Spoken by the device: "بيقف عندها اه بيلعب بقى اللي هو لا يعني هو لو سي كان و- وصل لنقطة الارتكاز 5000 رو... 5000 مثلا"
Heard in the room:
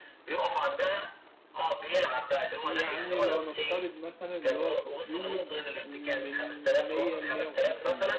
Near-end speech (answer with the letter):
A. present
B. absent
A